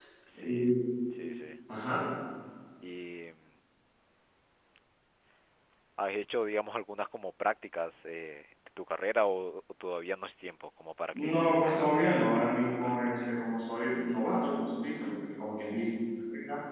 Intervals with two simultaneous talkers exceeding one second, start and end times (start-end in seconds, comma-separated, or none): 11.1-13.4